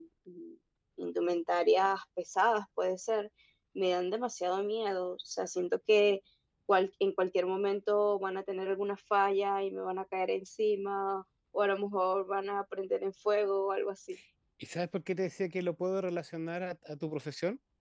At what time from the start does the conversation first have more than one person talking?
none

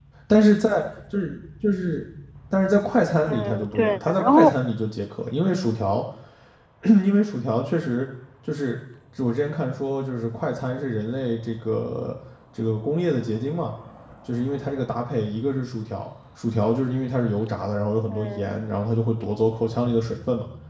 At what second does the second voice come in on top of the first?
3.3 s

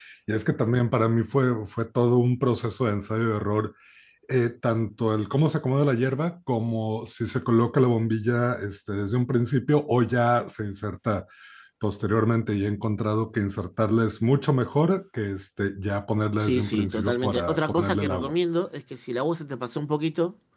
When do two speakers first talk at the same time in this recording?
16.4 s

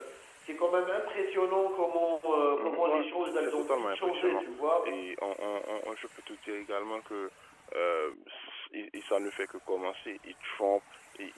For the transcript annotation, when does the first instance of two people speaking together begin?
2.6 s

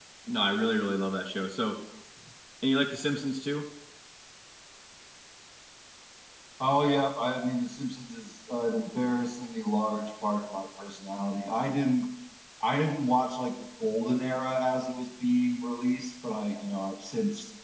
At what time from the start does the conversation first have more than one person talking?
none

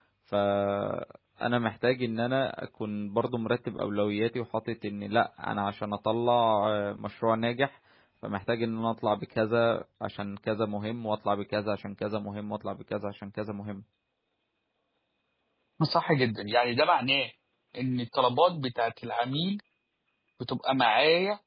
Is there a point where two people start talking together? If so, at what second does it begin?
none

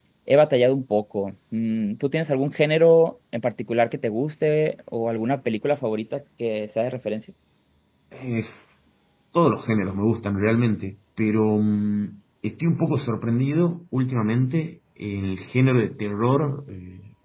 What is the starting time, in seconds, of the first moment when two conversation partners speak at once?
none

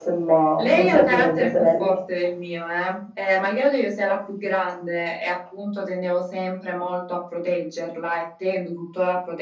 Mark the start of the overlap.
0.6 s

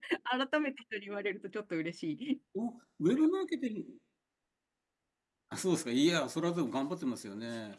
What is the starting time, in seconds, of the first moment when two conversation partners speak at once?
none

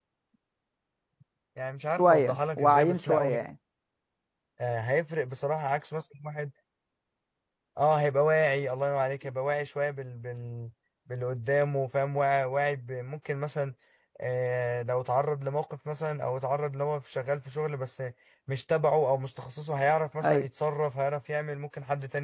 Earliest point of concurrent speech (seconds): 2.0 s

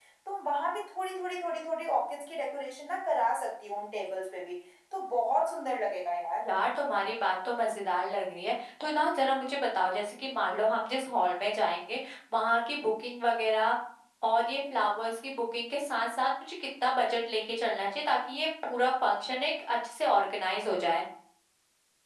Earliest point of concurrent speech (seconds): none

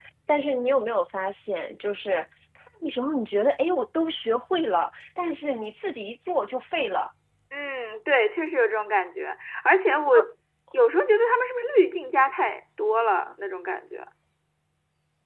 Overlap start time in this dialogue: none

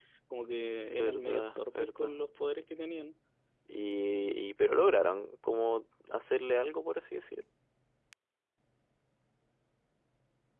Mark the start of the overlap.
0.9 s

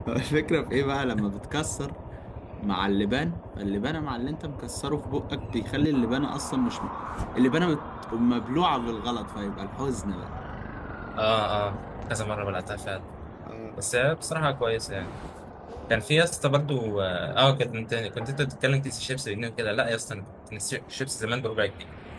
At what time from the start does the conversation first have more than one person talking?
none

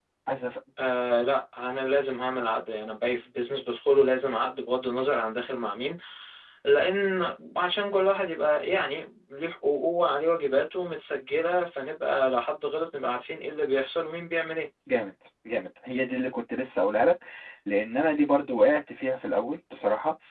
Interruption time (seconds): none

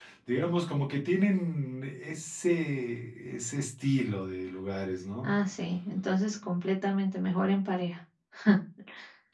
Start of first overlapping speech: none

